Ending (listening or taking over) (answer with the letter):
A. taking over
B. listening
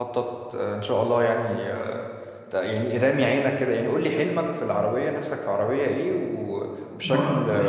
A